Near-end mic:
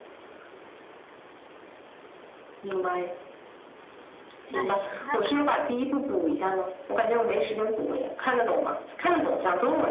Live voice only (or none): 那行，那可以。